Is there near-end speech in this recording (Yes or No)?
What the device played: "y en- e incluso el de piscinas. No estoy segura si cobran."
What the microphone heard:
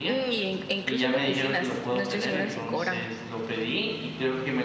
Yes